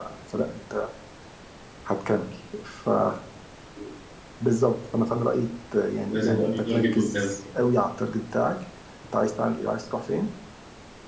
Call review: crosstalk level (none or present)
present